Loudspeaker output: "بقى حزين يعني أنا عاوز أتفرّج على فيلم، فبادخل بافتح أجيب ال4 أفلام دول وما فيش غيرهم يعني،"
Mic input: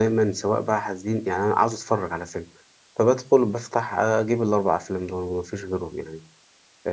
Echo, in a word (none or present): present